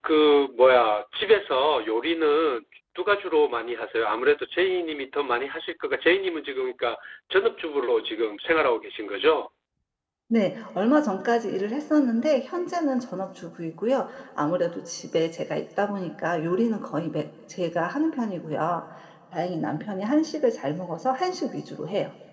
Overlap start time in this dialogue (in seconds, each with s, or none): none